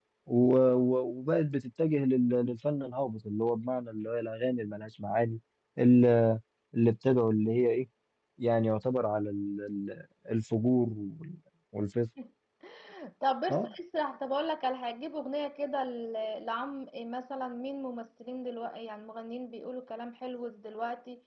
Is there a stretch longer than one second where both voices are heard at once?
No

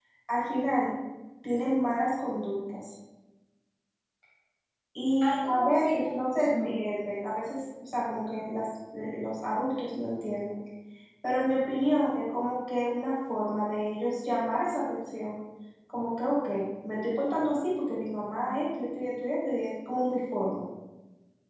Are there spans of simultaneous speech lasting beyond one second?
Yes, from 5.2 s

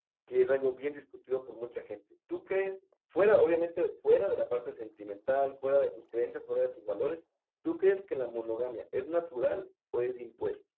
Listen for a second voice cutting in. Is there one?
No

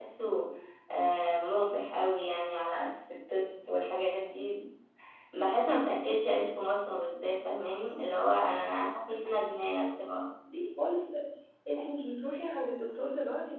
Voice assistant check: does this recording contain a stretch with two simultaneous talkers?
No

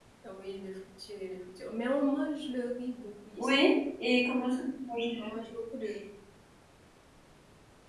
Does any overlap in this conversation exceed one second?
No

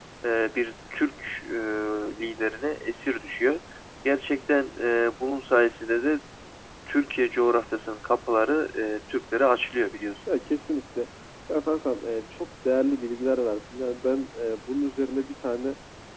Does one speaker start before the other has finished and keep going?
No

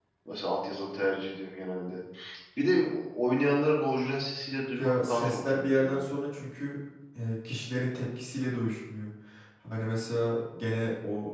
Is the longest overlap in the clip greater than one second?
Yes, from 4.8 s

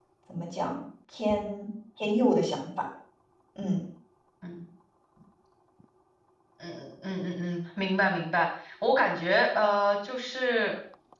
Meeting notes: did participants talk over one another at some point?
No

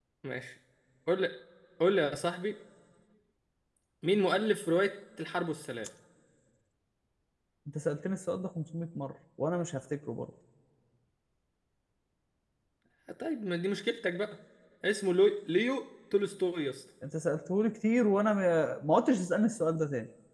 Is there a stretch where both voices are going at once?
No

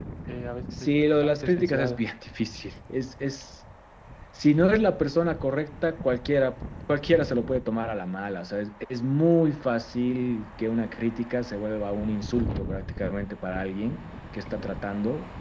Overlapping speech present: Yes, from 0.8 s

